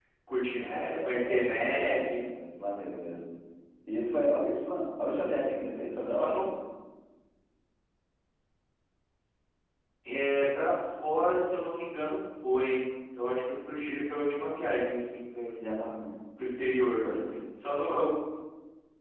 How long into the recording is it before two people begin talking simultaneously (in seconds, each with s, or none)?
0.6 s